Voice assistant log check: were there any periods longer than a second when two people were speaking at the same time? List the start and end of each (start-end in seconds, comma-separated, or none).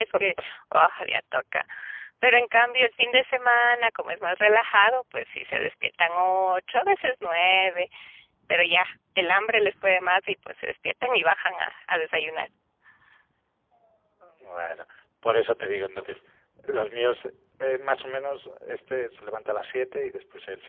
none